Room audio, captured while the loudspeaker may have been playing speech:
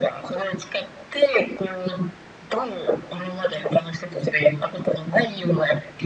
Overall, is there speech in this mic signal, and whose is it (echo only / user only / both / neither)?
echo only